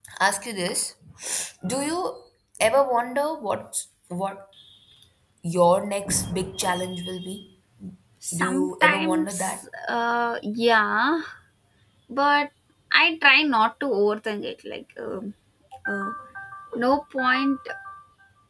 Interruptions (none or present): present